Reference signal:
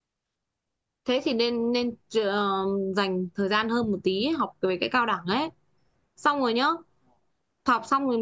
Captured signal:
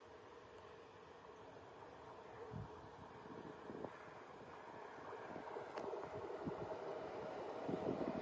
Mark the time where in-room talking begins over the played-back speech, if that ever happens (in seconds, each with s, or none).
none